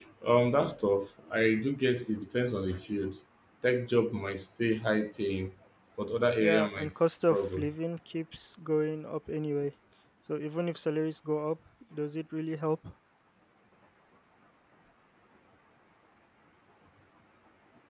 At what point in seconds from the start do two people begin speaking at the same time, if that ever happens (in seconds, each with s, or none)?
6.4 s